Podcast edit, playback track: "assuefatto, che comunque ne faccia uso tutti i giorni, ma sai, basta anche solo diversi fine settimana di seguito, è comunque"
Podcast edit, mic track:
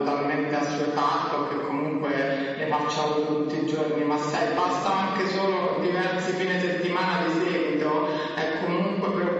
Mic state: echo only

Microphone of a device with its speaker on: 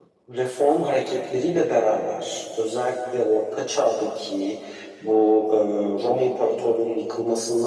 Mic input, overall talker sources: echo only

